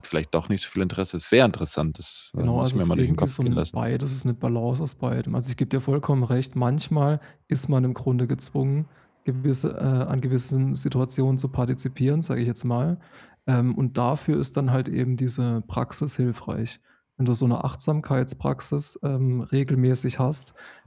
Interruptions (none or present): present